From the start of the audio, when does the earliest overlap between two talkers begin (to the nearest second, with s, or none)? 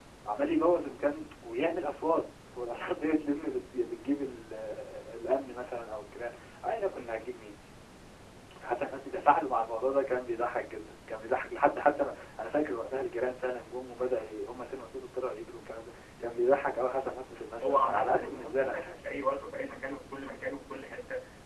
18 s